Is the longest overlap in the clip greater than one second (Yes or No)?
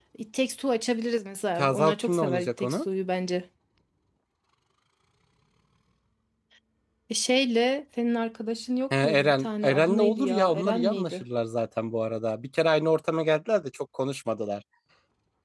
Yes